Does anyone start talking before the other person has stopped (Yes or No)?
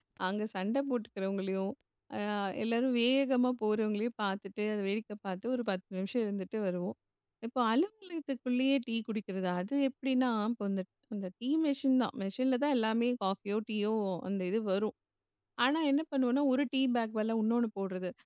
No